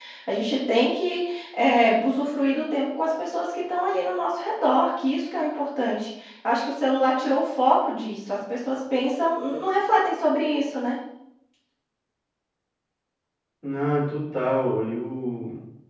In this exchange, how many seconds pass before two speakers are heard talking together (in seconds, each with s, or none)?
none